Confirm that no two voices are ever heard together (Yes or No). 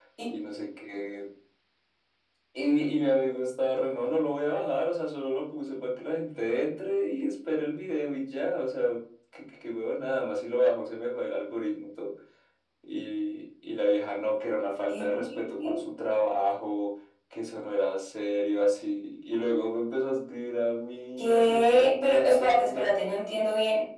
No